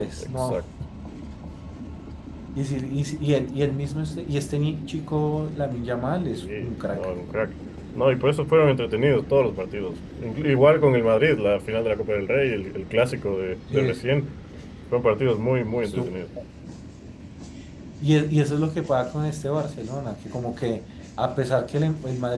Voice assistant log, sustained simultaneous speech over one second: none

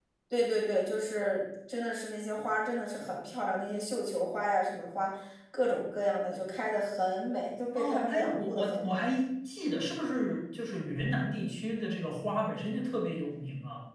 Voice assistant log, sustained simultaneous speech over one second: present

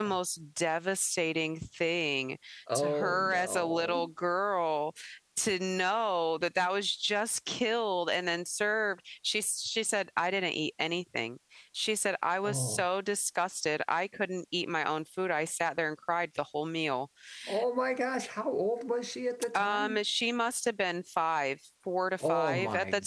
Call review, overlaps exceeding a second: present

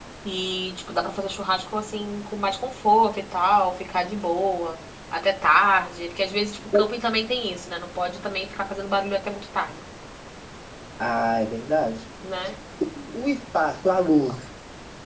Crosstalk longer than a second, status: none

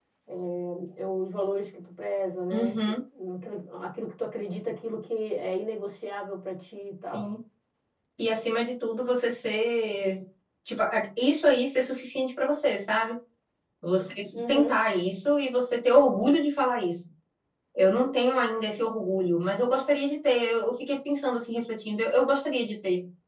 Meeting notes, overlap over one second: none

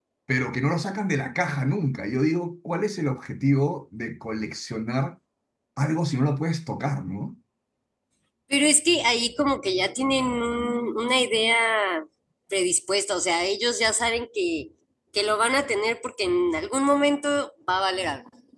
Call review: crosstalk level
none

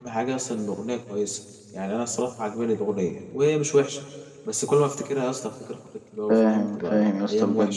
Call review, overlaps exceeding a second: present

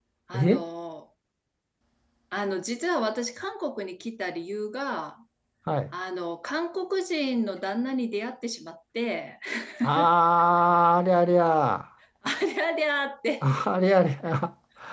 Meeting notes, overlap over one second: none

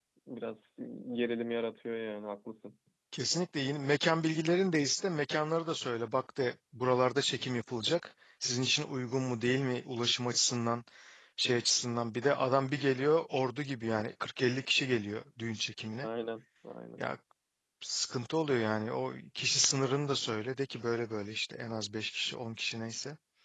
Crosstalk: none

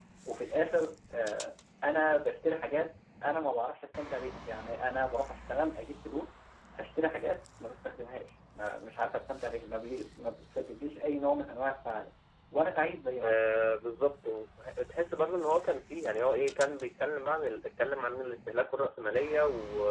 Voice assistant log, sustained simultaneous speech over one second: none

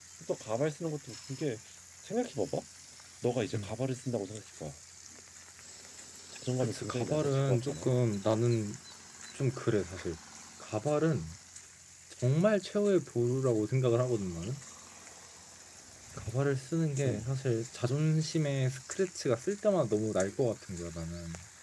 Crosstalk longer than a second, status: present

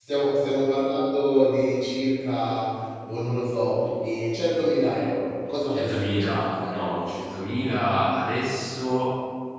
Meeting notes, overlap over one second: present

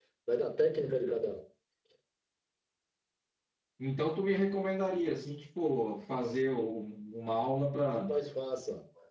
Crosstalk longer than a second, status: none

